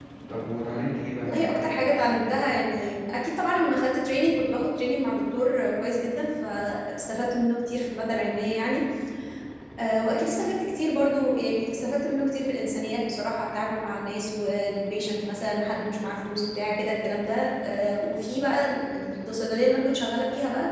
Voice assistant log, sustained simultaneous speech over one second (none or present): present